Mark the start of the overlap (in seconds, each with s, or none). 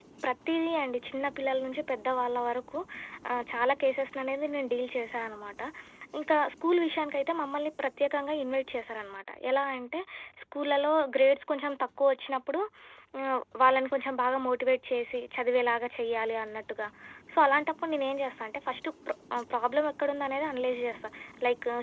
none